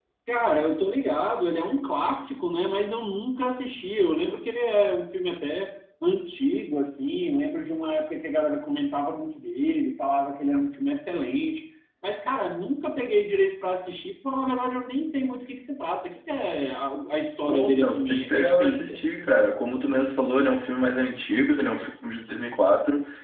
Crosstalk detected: Yes, from 17.5 s

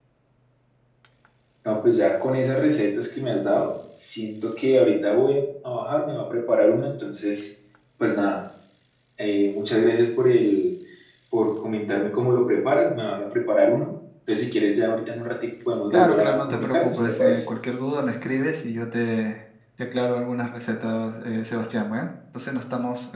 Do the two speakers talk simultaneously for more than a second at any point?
Yes, from 15.9 s

